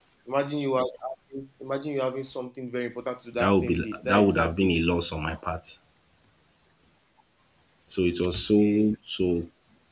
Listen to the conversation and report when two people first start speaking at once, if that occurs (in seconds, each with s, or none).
3.3 s